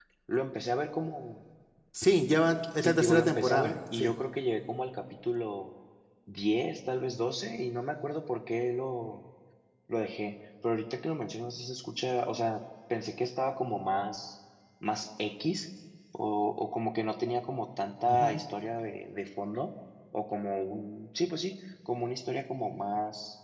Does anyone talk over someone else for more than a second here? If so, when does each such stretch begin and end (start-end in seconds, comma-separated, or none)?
2.8-4.1